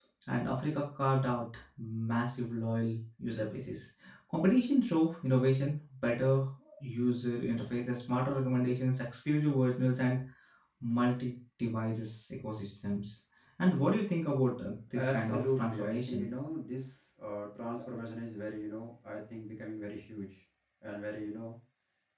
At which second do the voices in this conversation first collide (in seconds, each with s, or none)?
15.0 s